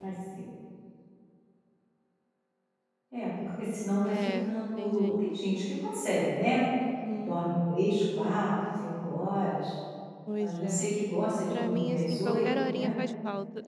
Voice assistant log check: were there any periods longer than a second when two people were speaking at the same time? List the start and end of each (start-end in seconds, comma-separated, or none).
4.0-5.3, 11.5-12.9